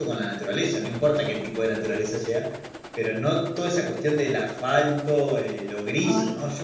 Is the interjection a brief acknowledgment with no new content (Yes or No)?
Yes